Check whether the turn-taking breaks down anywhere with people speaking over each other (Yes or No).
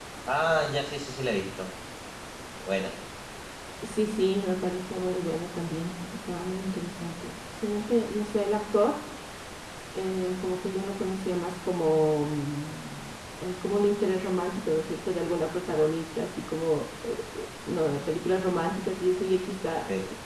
No